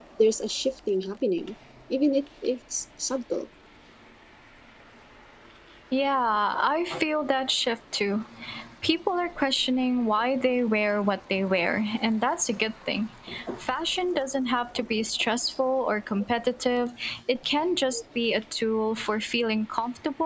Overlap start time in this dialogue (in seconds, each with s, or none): none